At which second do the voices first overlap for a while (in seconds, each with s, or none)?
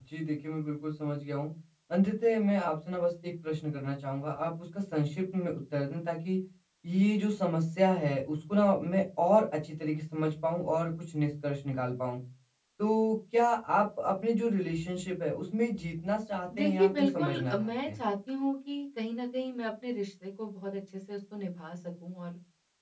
16.5 s